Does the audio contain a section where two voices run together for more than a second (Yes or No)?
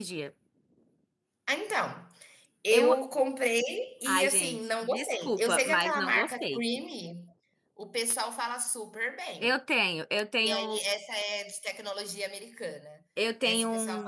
Yes